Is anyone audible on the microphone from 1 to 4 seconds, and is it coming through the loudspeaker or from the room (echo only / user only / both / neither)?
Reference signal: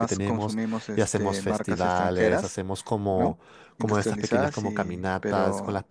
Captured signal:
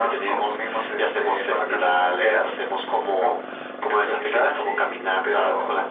echo only